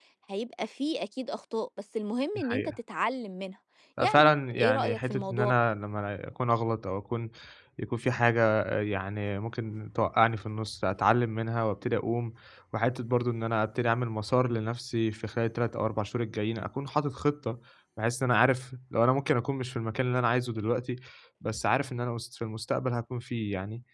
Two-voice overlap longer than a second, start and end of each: 4.0-5.5

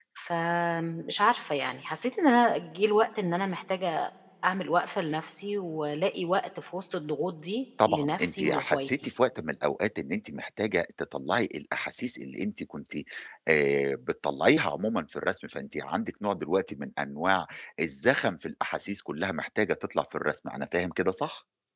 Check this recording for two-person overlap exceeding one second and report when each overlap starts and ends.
7.9-9.1

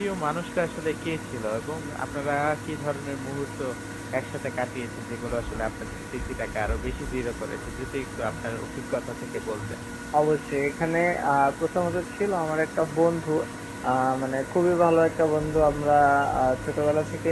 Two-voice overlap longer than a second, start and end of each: none

